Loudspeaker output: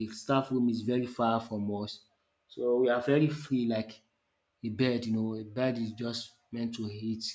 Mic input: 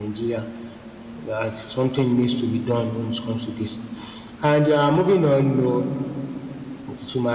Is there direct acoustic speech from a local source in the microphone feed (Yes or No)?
Yes